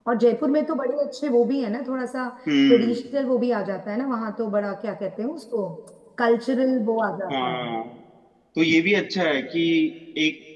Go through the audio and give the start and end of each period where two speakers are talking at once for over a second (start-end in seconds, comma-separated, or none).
none